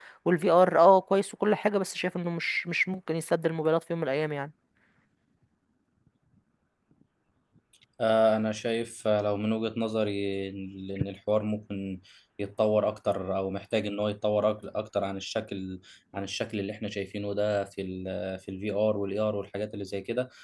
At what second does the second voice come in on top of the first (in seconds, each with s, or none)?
none